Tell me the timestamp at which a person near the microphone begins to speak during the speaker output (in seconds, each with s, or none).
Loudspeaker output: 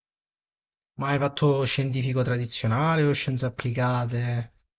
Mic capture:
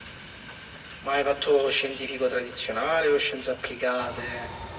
none